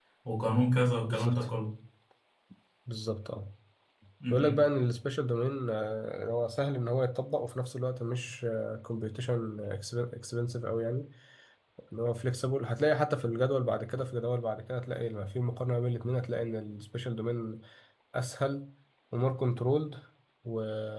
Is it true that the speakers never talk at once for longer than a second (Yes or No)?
Yes